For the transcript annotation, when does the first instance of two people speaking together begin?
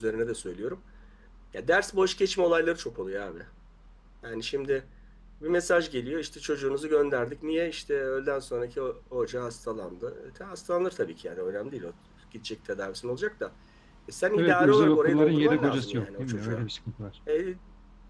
14 s

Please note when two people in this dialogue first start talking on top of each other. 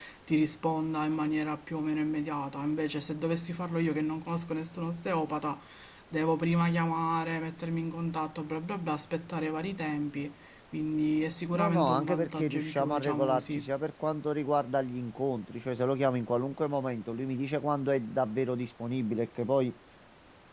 12 s

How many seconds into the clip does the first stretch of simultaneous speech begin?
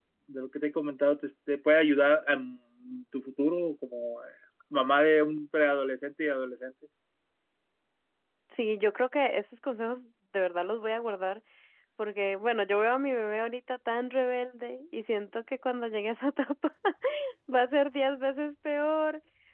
none

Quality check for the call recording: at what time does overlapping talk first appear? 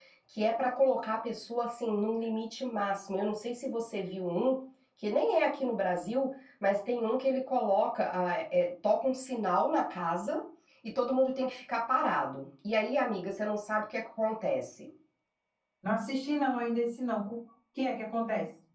none

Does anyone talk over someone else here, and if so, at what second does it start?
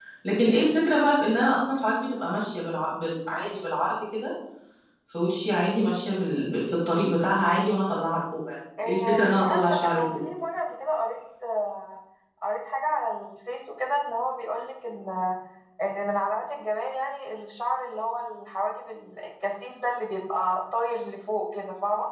9 s

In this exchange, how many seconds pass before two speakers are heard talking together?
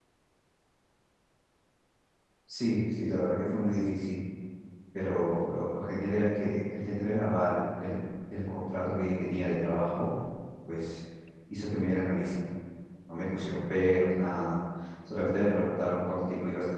none

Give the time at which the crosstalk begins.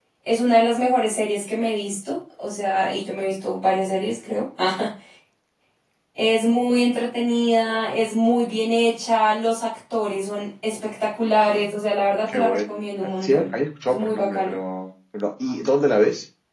12 s

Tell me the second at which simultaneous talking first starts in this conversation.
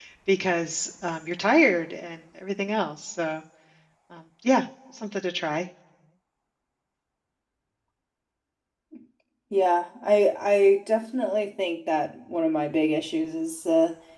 none

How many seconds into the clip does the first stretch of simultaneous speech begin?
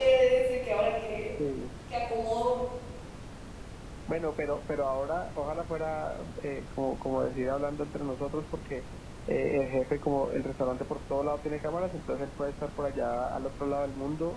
none

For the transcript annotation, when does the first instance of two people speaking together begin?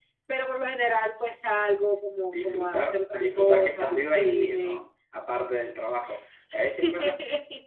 2 s

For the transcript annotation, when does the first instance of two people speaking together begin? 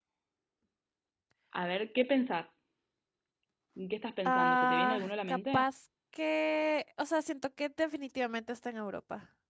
4 s

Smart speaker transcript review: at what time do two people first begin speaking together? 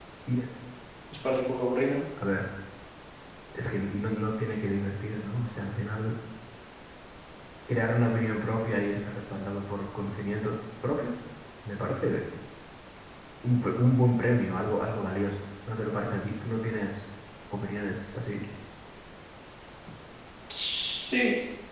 none

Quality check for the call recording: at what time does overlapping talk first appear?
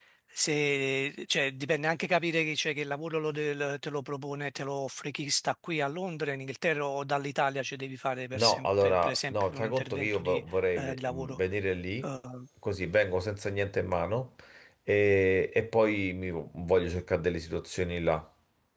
8 s

